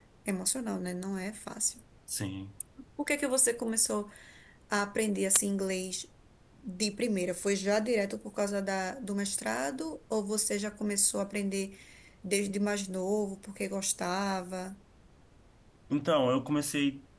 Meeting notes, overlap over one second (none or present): none